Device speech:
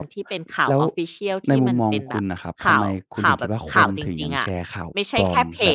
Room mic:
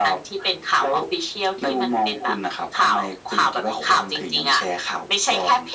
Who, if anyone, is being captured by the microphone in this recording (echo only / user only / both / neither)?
echo only